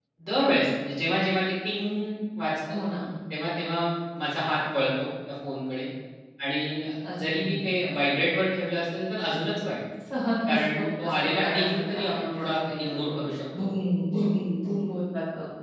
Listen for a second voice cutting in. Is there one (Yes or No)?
Yes